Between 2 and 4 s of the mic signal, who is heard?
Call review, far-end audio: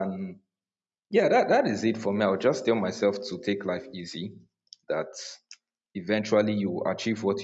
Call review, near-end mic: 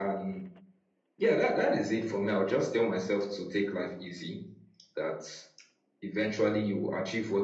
echo only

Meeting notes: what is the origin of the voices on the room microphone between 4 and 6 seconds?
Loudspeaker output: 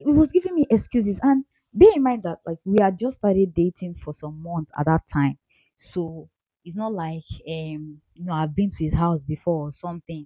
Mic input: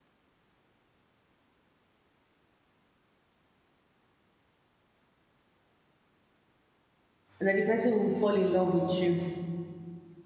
neither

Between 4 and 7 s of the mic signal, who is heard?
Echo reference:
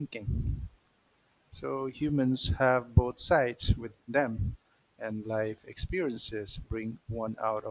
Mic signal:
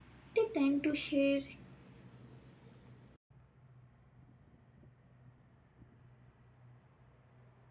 neither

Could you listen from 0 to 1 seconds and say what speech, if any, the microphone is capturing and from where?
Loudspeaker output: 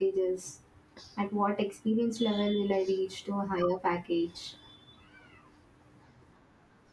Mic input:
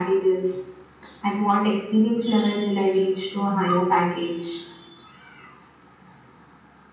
echo only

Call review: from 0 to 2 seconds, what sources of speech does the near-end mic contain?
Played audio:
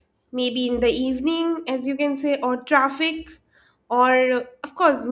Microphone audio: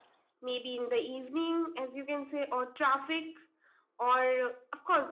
echo only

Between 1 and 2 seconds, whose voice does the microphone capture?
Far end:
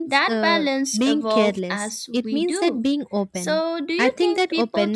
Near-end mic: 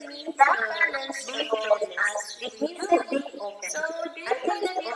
echo only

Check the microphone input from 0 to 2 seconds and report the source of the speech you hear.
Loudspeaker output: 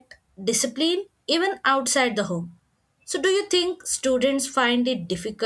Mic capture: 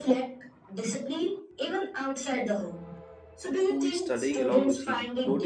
echo only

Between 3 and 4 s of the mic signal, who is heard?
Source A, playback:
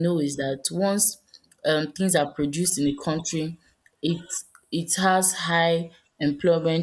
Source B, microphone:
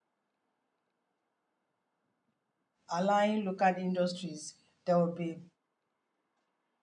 user only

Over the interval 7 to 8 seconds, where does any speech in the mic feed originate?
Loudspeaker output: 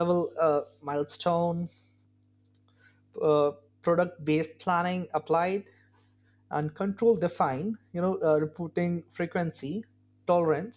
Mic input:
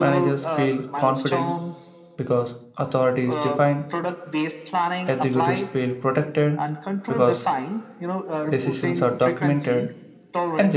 both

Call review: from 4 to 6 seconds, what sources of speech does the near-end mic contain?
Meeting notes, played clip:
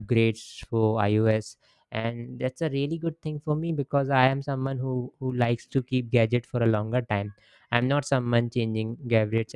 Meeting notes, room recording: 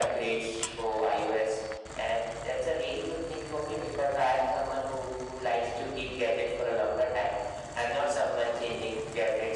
echo only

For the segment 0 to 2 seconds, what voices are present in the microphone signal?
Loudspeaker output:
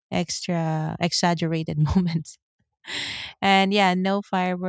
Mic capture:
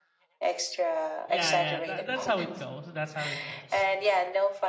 both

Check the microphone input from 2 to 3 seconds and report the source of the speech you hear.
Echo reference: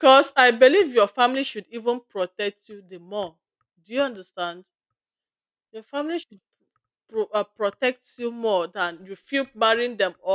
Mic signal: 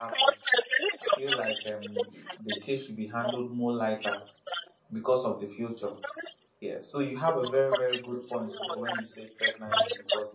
both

